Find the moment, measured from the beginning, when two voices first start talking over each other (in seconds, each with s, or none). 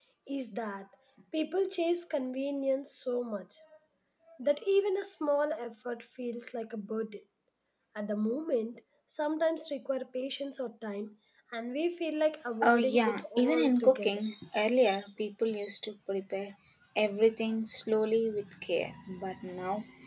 12.6 s